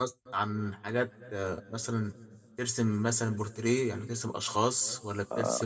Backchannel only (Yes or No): No